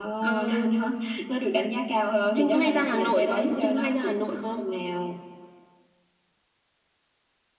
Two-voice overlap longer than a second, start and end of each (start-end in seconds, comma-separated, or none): 2.4-4.2